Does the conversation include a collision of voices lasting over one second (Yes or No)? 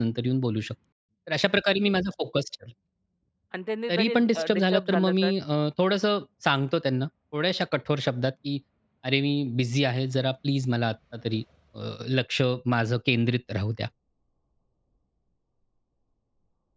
Yes